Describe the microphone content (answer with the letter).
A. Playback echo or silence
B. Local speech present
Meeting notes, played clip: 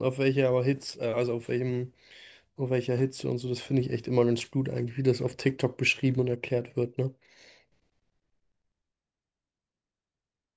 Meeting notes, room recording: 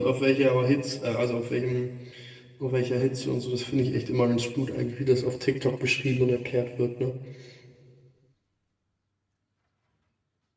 A